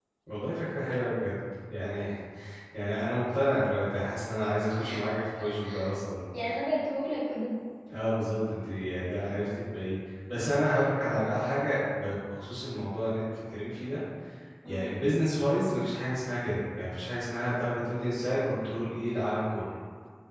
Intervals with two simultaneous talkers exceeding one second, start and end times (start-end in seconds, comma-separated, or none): none